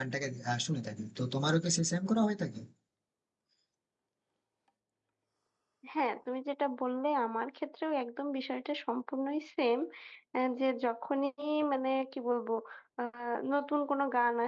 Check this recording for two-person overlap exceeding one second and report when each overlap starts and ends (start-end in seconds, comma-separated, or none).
none